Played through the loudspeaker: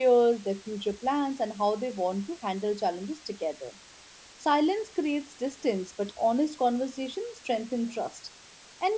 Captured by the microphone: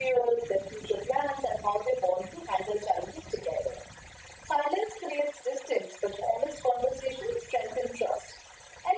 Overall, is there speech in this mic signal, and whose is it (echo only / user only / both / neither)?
echo only